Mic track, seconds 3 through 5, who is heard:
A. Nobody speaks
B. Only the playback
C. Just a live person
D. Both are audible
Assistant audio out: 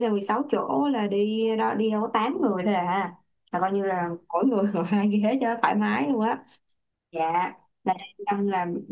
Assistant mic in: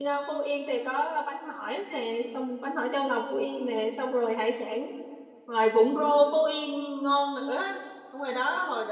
C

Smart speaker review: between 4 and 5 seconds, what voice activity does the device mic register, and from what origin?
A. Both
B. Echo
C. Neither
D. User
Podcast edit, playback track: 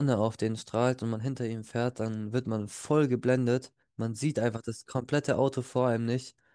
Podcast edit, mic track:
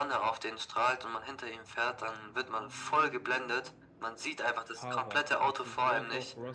A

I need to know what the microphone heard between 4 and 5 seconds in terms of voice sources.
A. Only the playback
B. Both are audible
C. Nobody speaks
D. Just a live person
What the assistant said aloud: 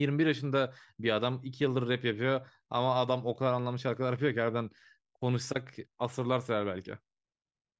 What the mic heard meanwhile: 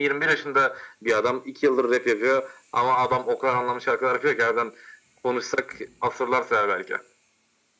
A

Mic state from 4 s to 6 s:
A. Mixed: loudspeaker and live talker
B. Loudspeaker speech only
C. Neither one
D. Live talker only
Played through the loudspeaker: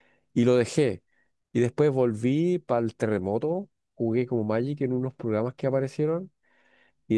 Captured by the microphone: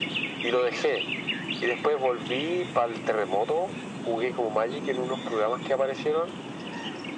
B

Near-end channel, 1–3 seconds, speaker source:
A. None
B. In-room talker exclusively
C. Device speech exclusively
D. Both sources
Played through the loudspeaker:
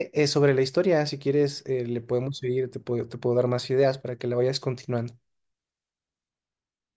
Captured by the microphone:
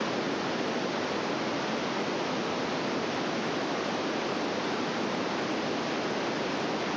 A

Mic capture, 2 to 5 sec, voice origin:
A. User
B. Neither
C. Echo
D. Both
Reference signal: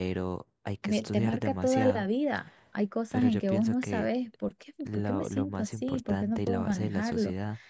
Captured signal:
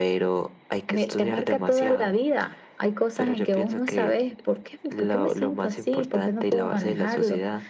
C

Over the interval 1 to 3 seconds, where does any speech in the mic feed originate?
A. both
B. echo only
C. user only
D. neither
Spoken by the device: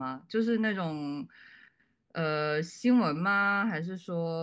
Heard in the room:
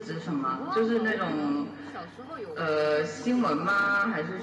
A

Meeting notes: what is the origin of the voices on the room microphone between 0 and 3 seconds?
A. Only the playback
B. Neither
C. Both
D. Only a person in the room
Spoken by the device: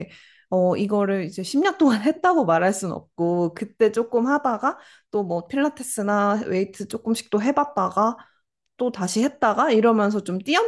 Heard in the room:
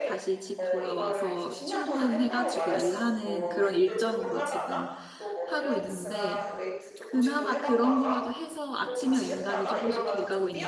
C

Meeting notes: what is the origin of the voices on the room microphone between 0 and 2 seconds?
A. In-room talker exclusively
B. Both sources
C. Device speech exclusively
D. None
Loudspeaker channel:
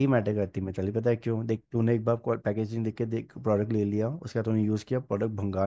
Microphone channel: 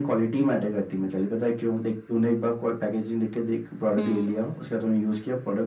C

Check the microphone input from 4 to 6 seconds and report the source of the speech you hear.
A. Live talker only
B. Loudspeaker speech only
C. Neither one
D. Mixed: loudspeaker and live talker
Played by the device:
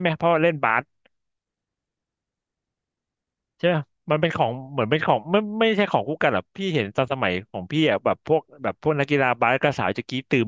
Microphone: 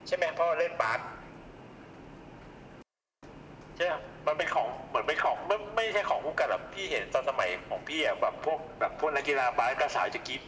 B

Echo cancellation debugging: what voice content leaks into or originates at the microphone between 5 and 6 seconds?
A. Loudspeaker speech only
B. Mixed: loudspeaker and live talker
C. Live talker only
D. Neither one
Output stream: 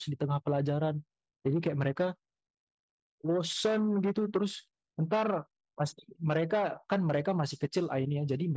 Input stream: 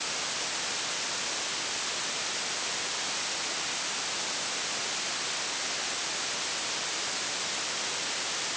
D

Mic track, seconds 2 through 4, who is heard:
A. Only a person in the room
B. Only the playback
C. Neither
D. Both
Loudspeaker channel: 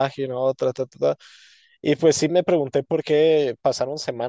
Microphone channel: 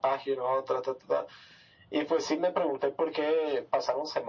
B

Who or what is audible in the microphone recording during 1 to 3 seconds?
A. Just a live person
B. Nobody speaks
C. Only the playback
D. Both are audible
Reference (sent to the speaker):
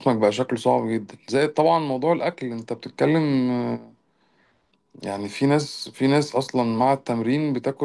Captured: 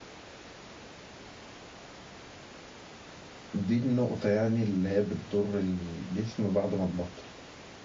B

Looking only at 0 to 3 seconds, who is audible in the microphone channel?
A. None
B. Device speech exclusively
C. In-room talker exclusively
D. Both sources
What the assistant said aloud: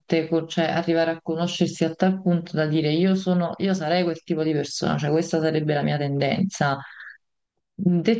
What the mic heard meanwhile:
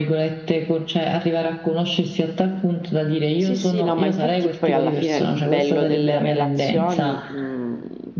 B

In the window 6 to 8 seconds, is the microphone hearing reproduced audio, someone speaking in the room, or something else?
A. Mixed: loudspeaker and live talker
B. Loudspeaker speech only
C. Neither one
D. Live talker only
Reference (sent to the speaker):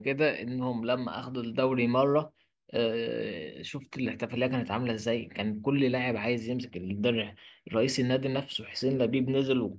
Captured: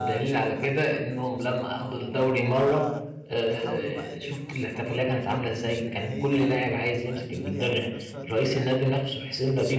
A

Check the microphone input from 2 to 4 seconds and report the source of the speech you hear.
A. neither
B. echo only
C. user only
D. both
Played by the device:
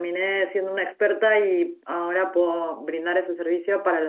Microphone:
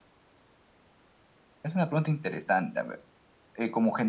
C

